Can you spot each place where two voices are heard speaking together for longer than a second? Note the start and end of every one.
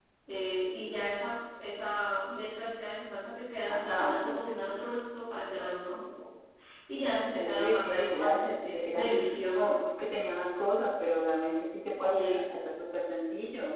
7.3-9.1

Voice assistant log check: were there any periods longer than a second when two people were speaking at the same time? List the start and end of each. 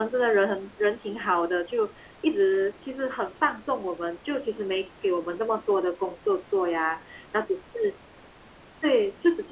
none

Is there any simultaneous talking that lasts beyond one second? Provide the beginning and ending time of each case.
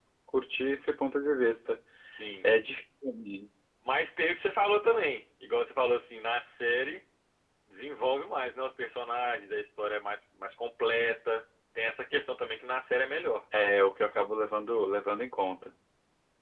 none

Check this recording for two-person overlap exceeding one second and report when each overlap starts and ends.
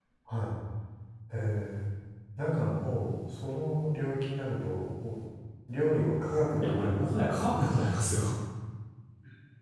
6.6-7.9

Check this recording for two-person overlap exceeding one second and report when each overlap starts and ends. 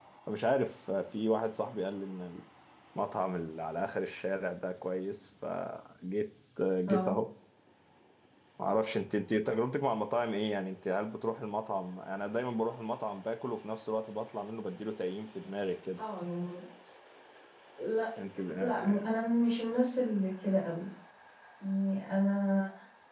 none

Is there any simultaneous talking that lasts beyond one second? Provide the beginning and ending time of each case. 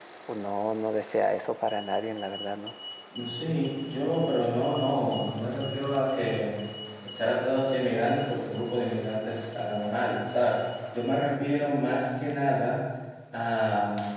none

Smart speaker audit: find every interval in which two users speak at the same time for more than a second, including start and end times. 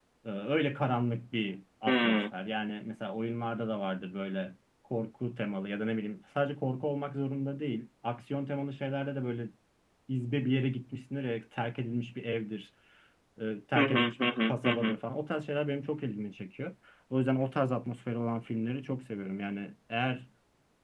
13.8-15.0

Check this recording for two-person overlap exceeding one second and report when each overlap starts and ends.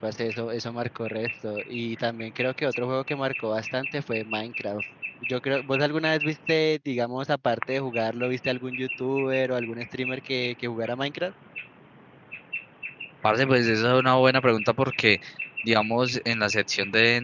none

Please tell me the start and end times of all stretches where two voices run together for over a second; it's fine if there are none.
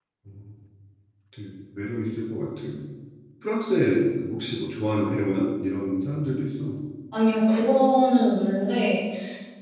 none

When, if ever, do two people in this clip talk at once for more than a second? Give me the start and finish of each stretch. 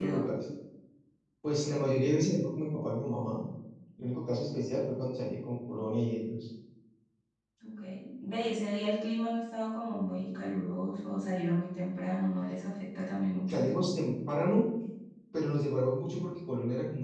none

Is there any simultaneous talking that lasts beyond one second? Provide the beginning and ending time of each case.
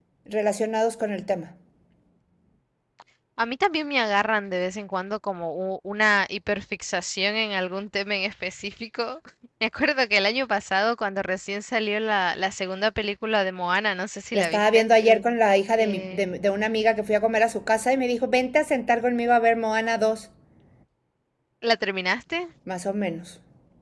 none

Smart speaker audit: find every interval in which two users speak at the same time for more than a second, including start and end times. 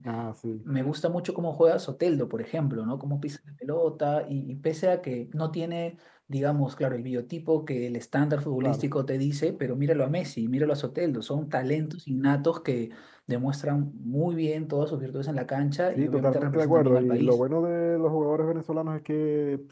15.9-17.4

